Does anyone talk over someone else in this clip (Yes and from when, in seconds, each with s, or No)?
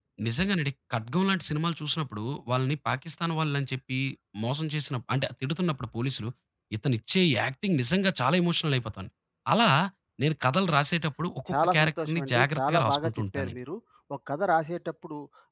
Yes, from 11.5 s